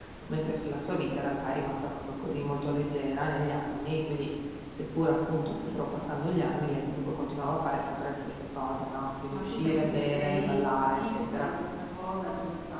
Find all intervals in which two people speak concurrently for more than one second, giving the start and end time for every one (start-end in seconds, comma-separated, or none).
9.3-11.5